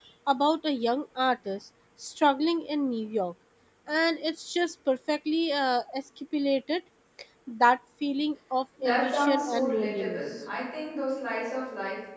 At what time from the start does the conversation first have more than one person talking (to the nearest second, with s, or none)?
9 s